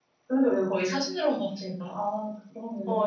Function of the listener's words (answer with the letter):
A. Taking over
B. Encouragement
A